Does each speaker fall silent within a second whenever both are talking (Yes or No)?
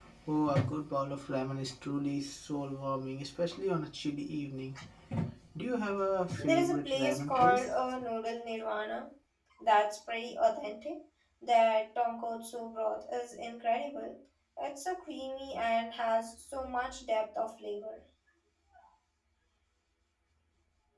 No